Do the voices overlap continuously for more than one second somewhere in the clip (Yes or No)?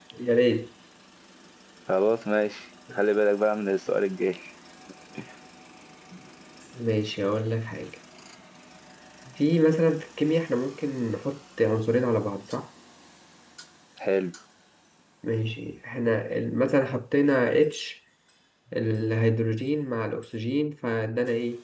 No